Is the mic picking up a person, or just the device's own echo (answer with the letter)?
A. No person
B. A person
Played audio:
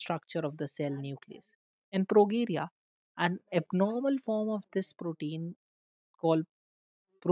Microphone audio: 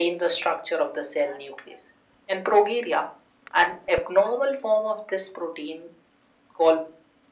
A